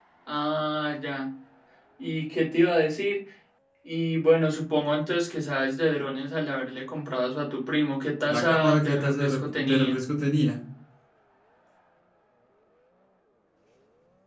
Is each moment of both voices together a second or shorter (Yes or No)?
No